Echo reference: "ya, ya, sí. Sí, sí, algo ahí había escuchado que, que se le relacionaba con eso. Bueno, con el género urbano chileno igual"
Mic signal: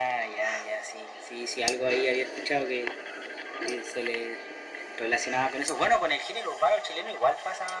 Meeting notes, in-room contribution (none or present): none